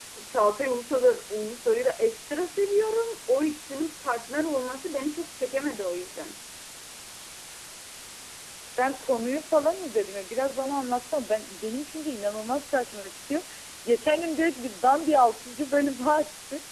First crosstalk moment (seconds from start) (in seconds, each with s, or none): none